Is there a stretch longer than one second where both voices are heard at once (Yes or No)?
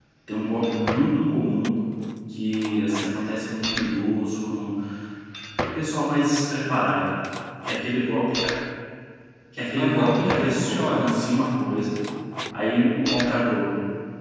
Yes